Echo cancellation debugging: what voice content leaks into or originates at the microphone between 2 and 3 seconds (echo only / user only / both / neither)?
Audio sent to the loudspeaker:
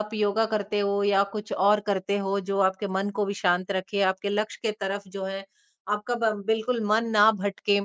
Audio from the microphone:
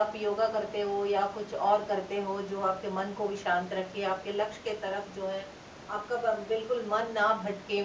echo only